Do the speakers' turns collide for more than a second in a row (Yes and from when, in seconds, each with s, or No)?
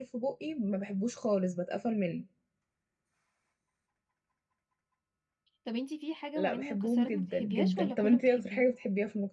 Yes, from 6.3 s